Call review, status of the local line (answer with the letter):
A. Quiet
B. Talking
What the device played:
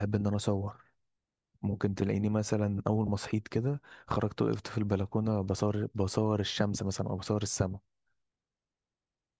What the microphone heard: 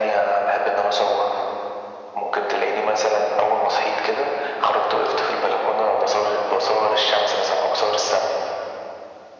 A